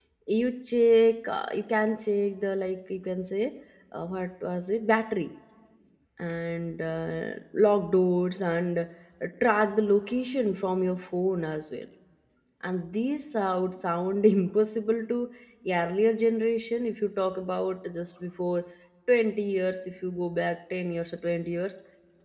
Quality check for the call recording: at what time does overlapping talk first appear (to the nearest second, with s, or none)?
none